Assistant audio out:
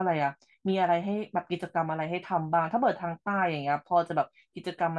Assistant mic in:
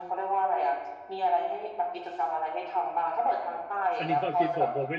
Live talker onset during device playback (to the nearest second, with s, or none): 4 s